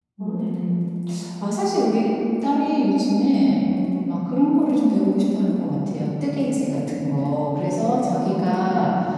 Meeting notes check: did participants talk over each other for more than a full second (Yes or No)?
Yes